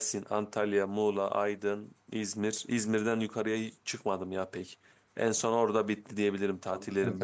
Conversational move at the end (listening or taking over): taking over